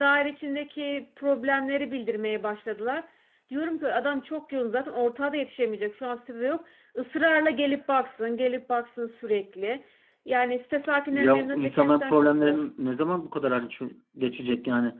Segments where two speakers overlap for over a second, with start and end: 11.1-12.6

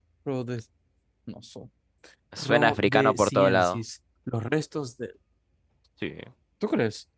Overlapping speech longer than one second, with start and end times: 2.4-3.8

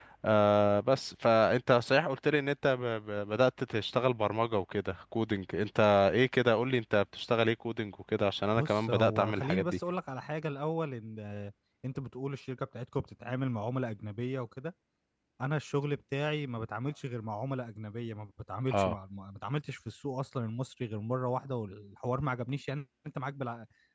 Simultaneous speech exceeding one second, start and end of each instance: 8.6-9.8

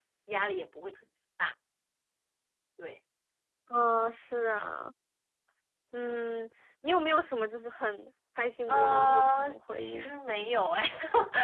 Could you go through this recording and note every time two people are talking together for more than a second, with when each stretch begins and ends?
8.7-10.1

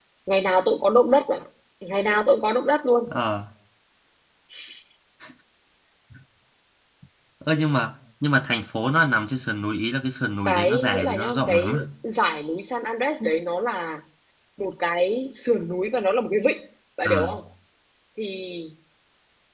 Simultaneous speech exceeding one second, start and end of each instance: 10.4-11.8

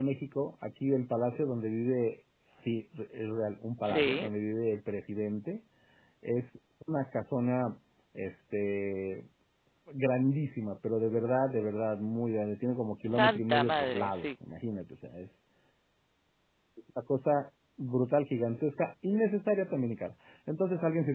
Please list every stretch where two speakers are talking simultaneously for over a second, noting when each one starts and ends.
13.0-14.3

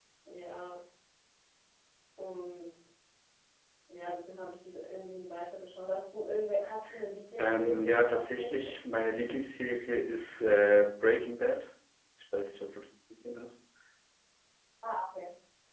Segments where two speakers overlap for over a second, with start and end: 7.4-8.7

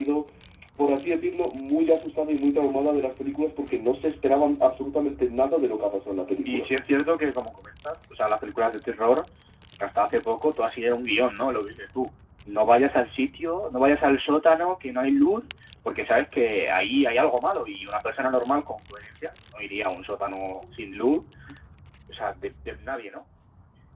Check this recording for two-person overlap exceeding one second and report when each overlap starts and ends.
none

